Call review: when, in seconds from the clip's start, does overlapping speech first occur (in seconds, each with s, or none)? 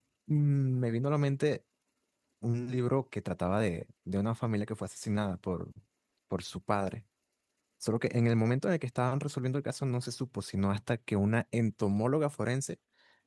none